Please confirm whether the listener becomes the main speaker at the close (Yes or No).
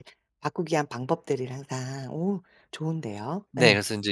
Yes